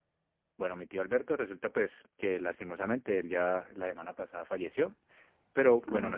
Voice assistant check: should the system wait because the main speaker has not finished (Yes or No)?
Yes